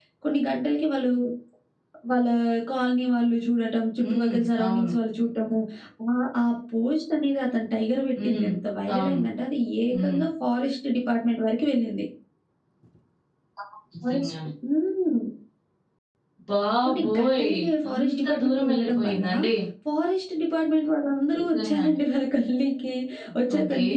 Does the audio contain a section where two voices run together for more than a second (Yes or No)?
Yes